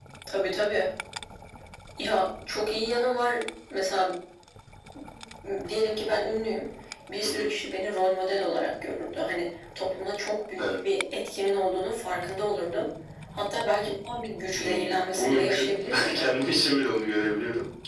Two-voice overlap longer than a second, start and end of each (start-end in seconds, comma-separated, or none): 14.5-16.4